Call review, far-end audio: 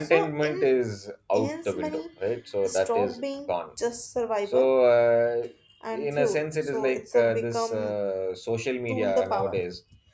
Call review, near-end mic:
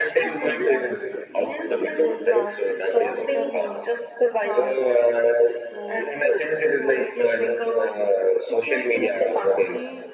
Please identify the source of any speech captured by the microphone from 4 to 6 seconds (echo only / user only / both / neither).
both